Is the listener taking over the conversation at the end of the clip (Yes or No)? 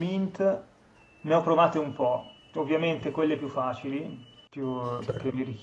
No